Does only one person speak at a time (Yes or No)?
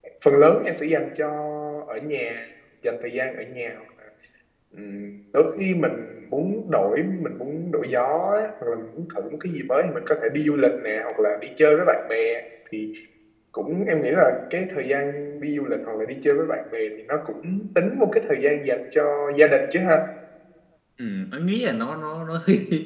Yes